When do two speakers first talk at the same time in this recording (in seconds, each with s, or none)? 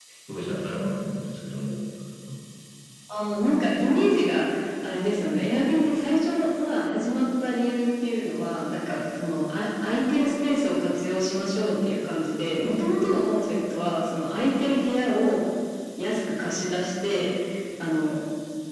none